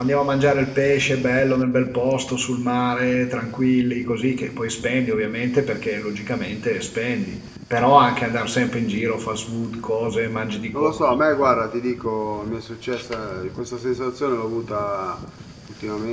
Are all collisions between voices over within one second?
Yes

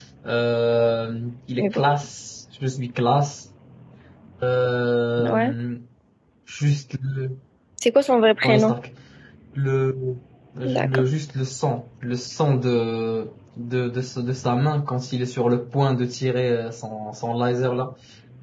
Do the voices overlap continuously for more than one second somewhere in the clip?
No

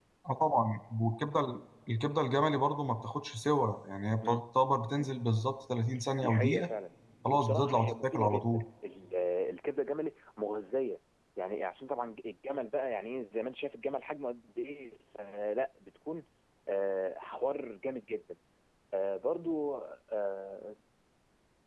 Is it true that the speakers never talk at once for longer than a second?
No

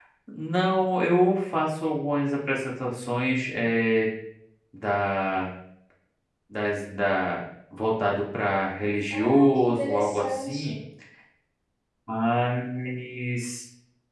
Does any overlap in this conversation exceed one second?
Yes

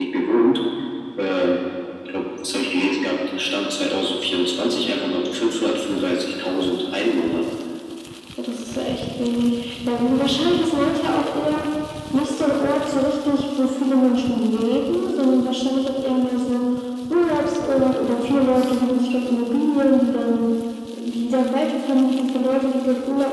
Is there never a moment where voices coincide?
Yes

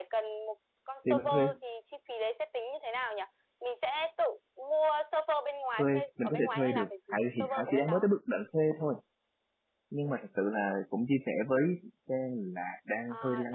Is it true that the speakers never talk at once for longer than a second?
No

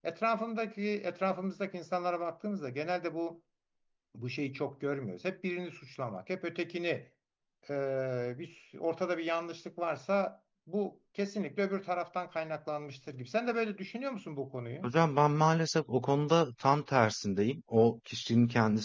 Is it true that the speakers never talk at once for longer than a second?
Yes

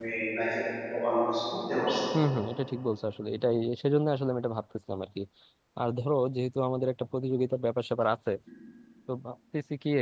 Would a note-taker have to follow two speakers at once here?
No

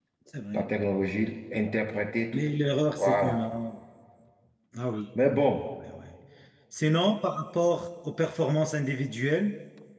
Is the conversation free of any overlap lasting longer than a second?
Yes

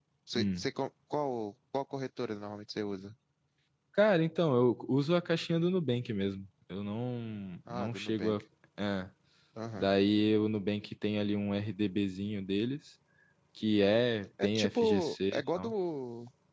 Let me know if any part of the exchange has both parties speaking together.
Yes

